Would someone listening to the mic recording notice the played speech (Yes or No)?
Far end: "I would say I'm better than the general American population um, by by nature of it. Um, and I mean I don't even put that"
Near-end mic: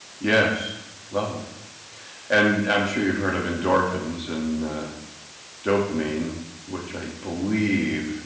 No